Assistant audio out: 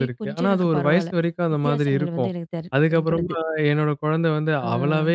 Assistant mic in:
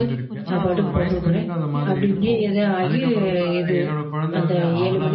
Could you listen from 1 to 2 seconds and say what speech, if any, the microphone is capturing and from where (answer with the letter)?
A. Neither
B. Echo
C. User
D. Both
D